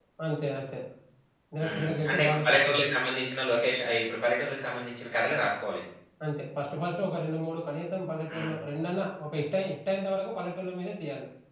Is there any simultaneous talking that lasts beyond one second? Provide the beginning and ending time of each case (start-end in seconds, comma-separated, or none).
1.6-2.9